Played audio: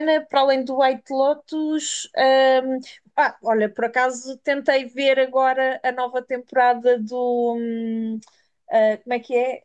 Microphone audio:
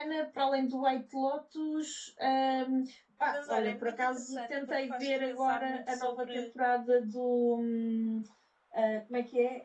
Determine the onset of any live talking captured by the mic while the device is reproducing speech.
3.2 s

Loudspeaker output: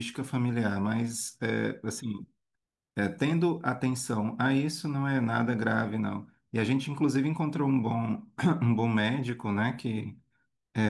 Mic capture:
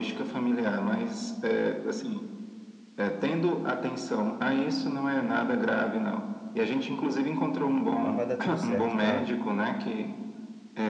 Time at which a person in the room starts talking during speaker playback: 8.0 s

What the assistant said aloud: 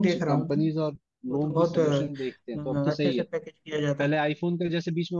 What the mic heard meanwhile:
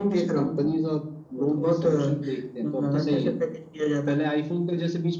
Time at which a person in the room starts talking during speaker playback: none

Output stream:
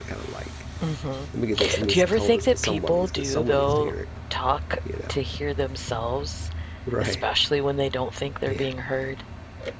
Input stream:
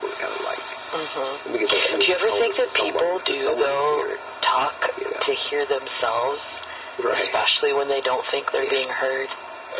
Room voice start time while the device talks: none

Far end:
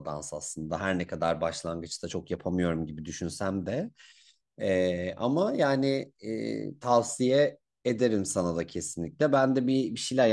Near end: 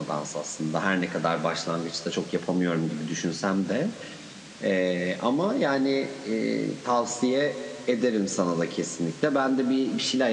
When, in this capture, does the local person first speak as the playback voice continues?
none

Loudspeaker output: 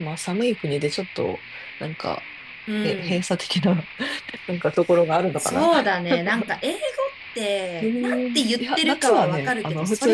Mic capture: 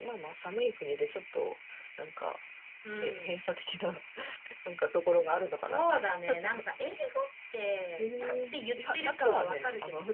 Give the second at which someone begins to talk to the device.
none

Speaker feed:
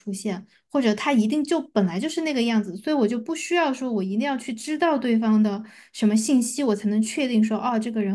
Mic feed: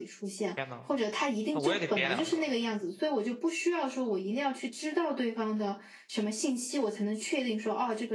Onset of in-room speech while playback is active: 0.6 s

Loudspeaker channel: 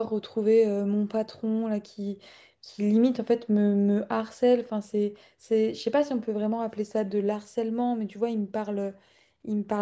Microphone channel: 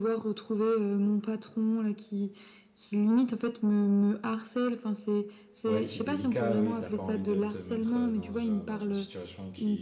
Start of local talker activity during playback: 5.6 s

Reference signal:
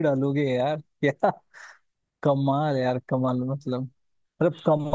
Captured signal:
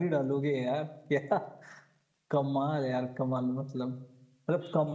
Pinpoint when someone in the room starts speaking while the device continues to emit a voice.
none

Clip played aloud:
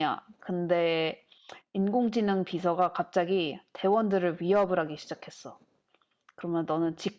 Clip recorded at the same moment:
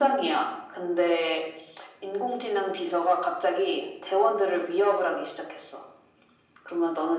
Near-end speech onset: none

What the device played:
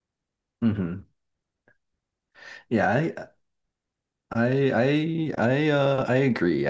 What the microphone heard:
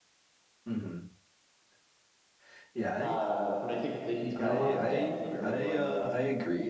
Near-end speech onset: 3.0 s

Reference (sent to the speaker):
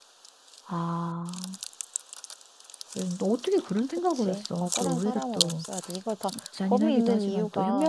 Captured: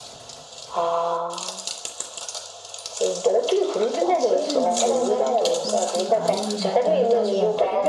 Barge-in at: 4.0 s

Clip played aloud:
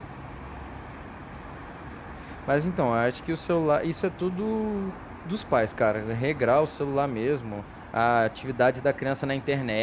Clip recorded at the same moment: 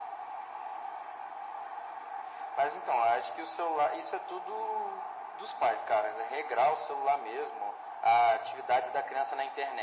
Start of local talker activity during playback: none

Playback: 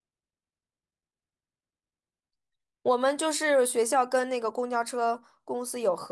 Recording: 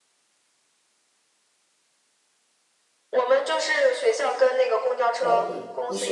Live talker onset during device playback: 5.2 s

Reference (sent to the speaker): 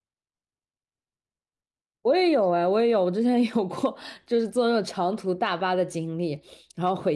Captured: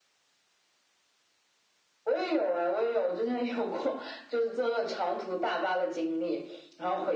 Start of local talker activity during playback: none

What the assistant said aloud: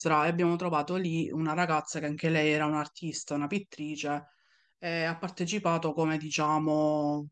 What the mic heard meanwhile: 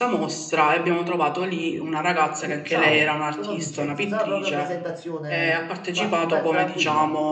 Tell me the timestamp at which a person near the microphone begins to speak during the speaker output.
2.4 s

